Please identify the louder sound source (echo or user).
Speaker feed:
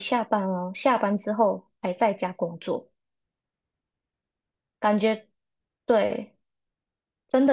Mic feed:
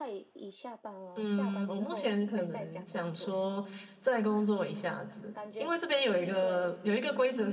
user